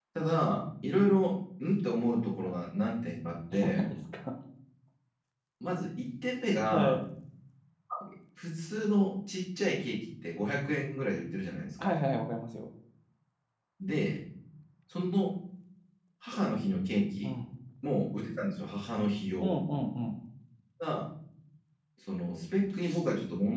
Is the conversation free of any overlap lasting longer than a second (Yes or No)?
Yes